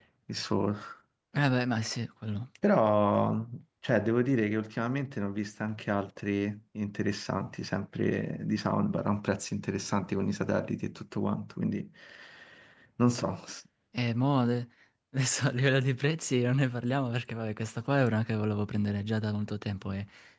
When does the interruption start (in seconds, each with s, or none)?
none